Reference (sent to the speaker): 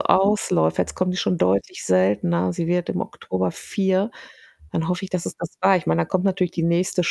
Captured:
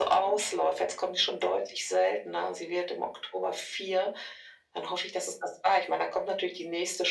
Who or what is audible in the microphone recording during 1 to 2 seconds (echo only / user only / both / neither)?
echo only